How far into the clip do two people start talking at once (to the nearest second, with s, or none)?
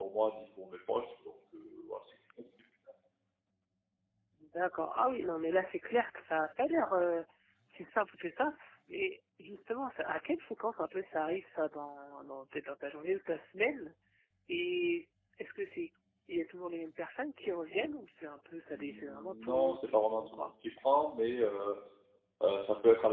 19 s